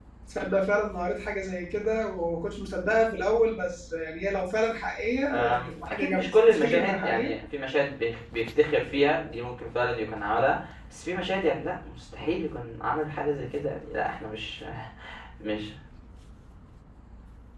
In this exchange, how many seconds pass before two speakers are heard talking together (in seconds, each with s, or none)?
5.3 s